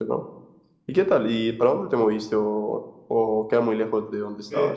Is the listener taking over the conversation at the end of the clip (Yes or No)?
Yes